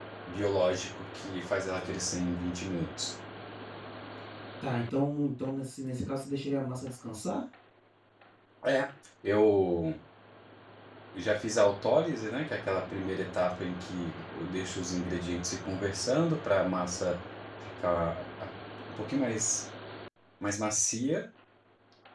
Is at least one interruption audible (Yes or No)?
No